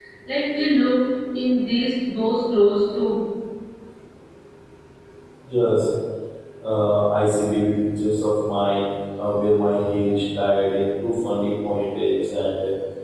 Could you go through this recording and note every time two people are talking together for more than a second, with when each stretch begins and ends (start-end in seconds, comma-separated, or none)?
none